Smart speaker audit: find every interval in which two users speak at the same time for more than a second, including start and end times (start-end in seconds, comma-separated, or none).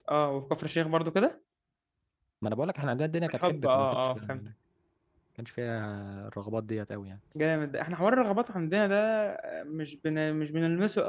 3.3-4.5